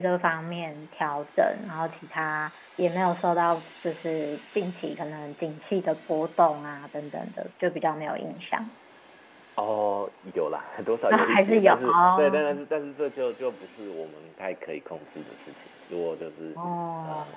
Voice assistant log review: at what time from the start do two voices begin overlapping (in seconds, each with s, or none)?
11.1 s